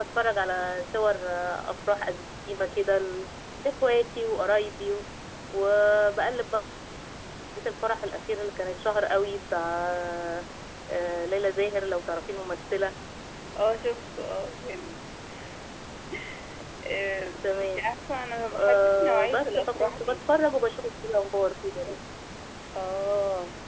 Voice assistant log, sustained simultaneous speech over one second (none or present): present